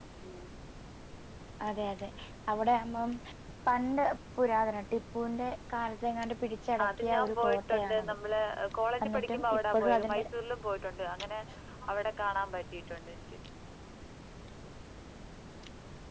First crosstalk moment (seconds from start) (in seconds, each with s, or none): 6.8 s